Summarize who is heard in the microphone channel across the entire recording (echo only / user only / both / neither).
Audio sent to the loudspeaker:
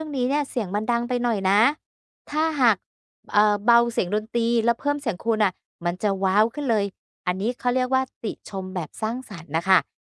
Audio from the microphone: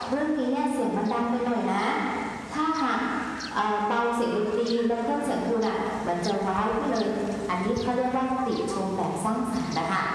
echo only